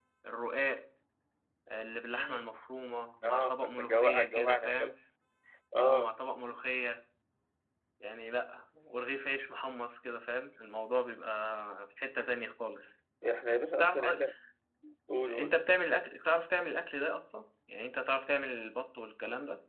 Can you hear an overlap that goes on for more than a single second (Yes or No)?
Yes